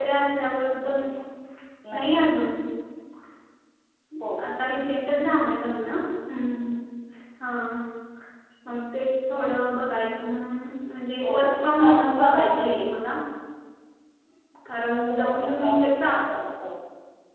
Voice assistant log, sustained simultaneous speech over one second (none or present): present